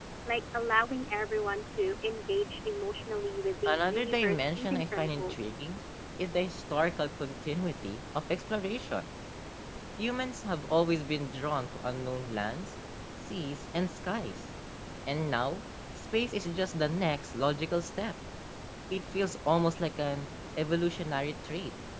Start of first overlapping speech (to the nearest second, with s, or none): 4 s